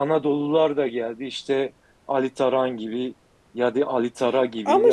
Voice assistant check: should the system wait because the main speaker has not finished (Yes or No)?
Yes